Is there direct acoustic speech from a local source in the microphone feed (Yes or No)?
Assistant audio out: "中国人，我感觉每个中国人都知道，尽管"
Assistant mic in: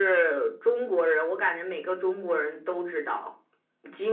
No